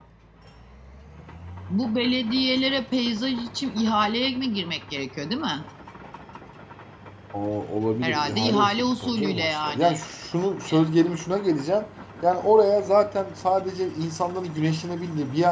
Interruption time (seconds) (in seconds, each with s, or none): 8.0 s